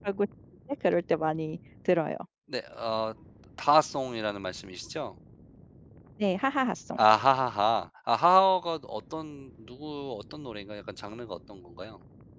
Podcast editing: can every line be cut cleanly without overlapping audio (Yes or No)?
Yes